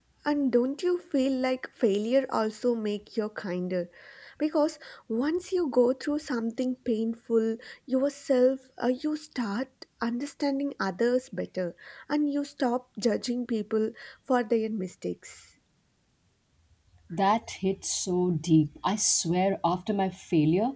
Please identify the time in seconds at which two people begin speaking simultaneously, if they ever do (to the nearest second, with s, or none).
none